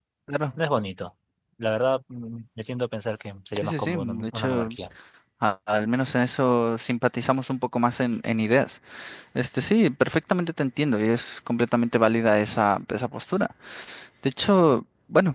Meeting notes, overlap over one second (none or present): present